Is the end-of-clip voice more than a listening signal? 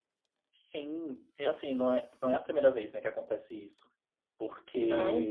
No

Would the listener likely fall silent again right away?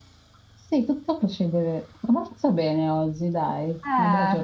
No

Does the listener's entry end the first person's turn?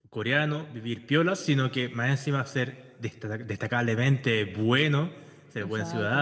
No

